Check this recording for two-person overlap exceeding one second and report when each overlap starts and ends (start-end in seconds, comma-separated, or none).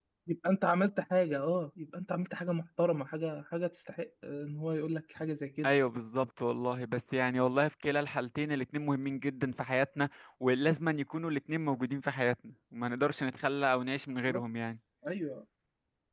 none